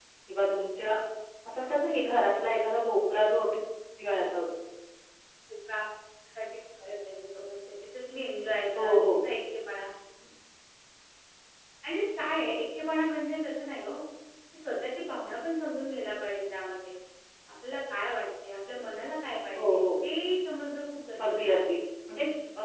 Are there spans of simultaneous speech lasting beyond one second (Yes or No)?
No